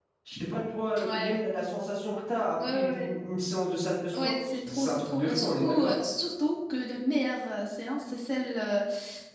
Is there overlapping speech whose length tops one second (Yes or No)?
Yes